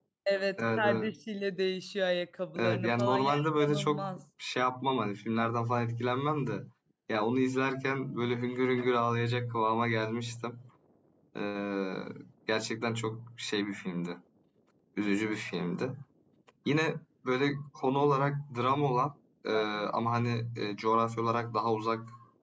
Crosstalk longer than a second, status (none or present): present